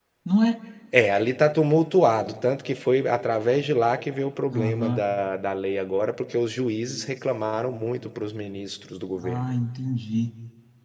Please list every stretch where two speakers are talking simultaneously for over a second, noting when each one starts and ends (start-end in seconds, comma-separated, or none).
none